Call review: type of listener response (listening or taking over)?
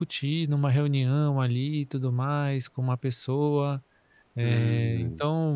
listening